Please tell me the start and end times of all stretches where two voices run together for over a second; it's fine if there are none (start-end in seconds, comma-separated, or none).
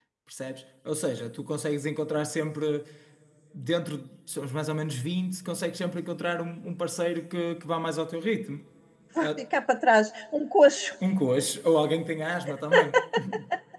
none